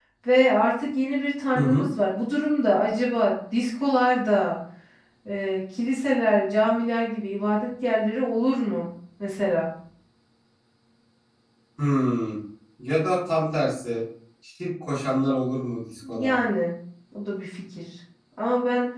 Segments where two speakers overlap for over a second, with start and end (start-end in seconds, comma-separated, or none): none